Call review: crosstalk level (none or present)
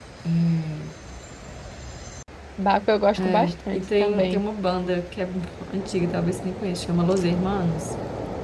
present